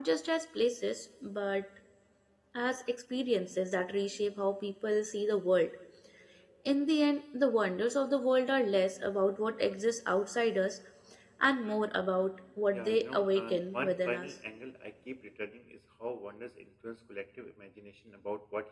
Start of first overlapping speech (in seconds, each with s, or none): 12.7 s